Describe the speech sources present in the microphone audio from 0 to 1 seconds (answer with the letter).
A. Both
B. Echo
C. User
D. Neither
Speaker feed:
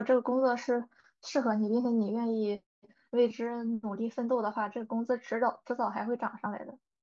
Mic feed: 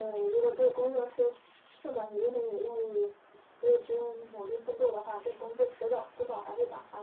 B